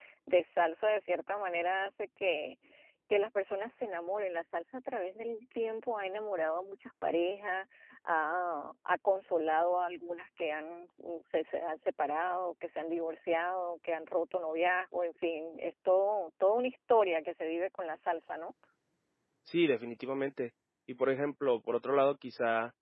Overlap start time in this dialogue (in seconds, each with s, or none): none